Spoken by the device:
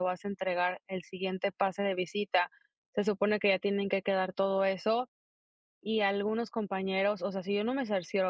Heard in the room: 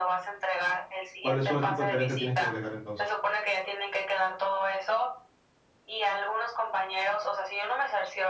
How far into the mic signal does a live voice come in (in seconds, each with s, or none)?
1.2 s